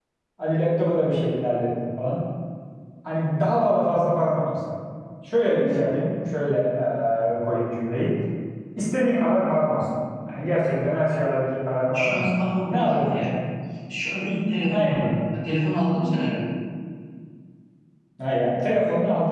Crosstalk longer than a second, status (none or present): present